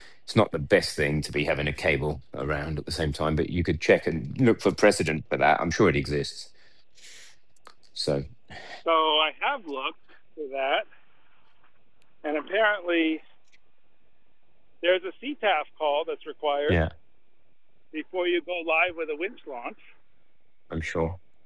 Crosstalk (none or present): none